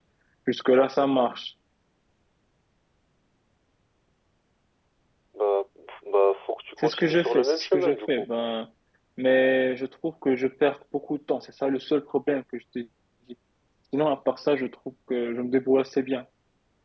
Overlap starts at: 7 s

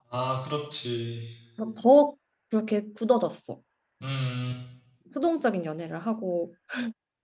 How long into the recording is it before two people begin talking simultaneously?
none

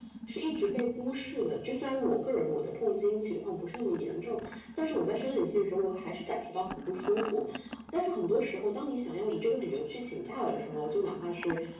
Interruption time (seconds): none

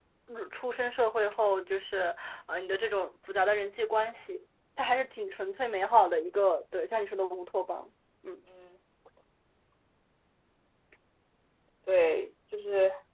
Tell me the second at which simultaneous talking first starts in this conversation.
none

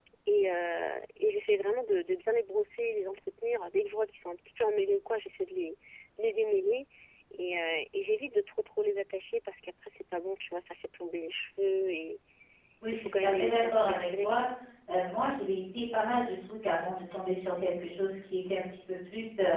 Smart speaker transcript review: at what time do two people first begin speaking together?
13 s

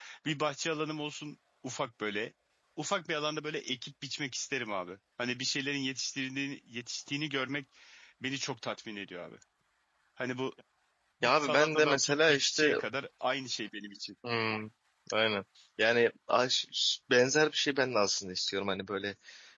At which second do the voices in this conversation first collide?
11 s

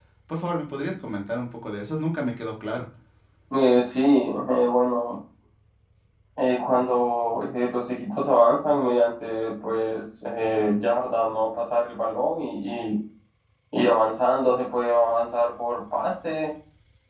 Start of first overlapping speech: none

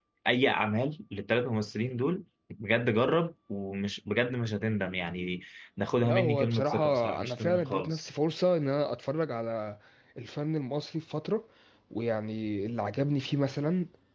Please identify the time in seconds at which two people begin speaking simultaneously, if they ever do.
6 s

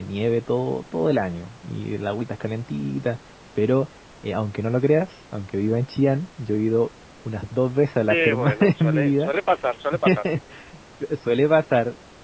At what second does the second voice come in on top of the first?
8 s

